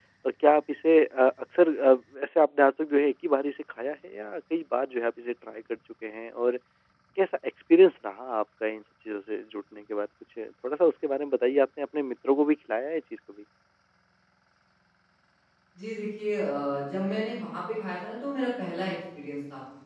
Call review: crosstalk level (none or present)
none